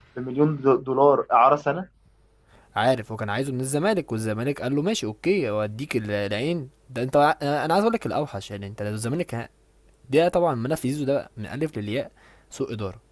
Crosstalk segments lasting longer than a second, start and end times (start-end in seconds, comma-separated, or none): none